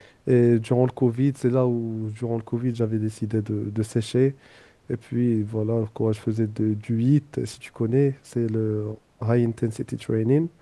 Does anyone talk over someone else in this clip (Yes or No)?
No